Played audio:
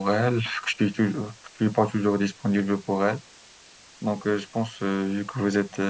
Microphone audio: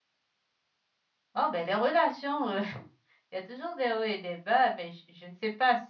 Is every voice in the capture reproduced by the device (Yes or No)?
No